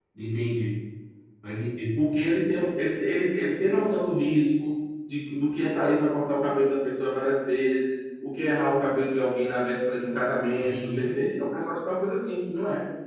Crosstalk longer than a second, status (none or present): none